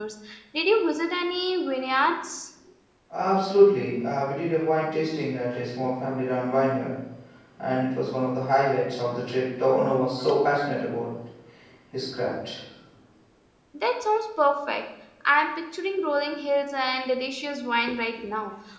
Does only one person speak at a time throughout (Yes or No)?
Yes